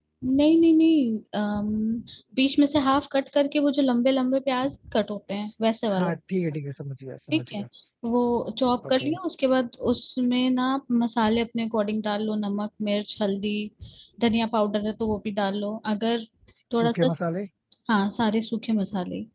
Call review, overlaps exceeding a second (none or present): none